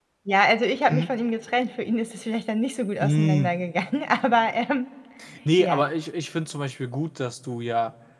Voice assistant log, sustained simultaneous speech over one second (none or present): none